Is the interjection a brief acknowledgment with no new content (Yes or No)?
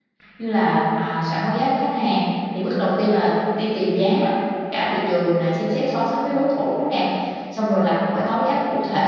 Yes